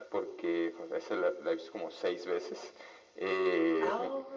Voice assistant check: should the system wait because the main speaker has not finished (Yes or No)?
Yes